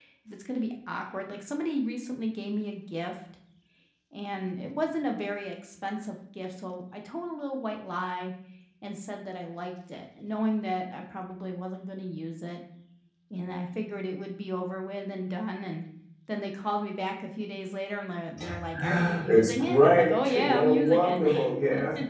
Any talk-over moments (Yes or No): Yes